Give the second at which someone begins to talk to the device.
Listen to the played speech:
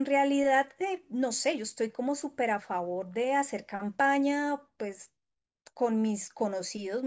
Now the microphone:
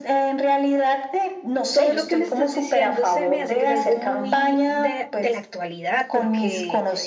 1.7 s

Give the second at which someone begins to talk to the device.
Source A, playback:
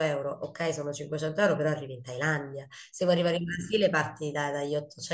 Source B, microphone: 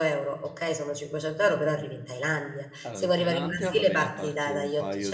2.8 s

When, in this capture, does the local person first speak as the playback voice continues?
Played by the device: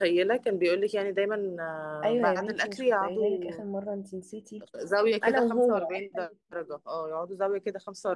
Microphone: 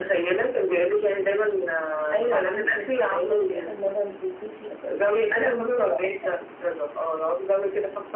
none

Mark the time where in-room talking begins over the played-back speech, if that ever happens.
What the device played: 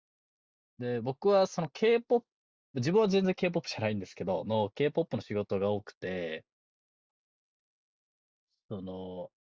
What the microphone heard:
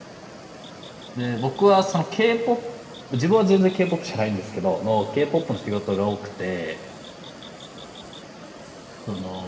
none

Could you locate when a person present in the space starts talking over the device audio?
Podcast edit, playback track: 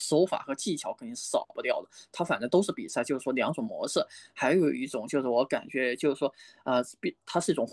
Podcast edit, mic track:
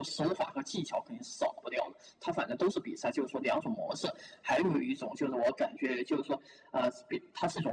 none

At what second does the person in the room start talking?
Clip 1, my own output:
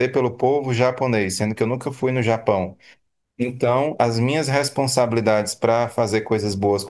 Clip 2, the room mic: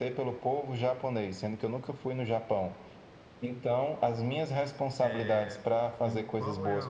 5.0 s

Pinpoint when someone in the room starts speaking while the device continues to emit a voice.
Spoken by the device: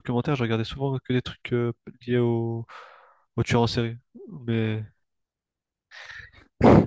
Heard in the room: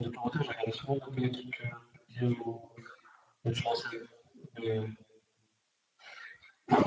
none

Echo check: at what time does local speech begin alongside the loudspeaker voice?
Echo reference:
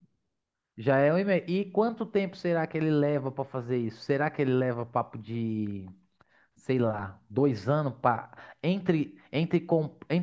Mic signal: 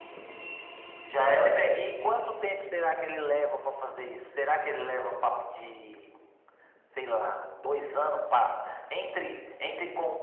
none

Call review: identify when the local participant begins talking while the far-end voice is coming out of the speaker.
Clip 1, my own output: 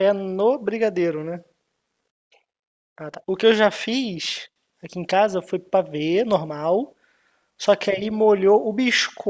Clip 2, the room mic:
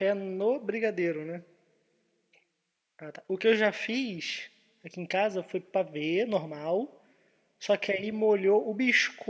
none

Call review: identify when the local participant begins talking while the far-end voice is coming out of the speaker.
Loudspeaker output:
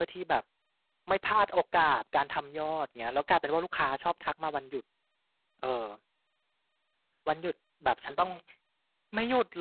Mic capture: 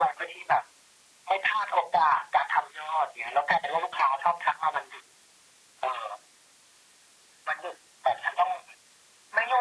none

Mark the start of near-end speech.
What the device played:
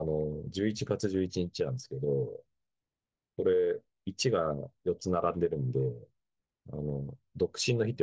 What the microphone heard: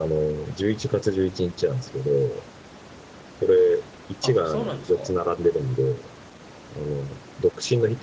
4.2 s

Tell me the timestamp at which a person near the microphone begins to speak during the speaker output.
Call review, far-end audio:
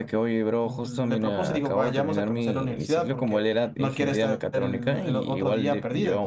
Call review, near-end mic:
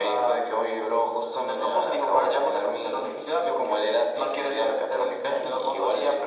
none

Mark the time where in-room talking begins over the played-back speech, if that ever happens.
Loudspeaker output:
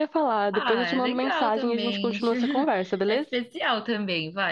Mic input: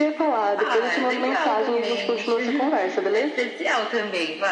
none

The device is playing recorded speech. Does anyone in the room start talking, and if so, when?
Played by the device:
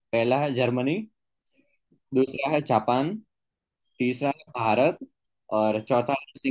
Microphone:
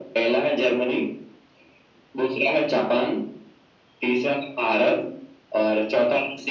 none

